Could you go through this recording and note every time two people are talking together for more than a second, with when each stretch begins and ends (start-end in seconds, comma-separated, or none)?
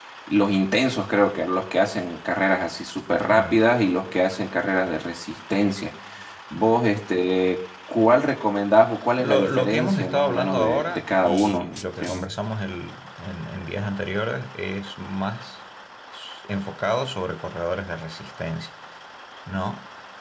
9.2-12.3